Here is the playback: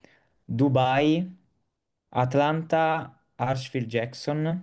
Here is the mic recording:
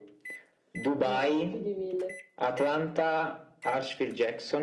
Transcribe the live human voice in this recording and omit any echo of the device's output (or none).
No, più di 1000.